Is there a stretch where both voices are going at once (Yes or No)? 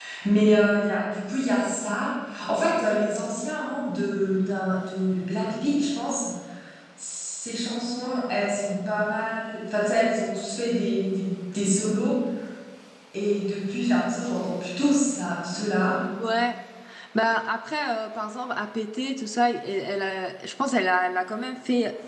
No